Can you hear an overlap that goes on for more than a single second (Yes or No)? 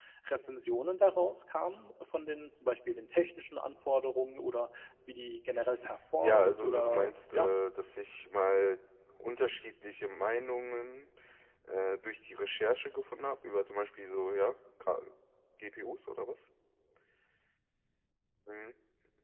Yes